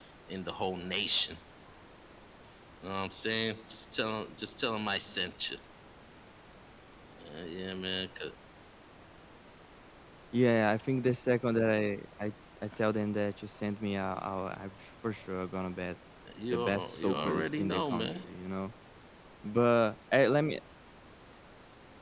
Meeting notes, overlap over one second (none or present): present